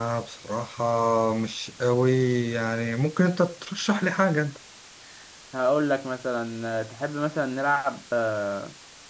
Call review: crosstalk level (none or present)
none